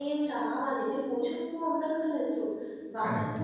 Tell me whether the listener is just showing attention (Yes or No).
Yes